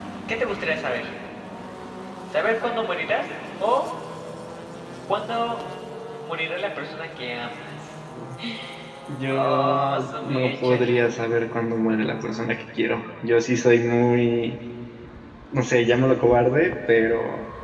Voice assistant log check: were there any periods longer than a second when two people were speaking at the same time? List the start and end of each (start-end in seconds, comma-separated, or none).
9.3-11.0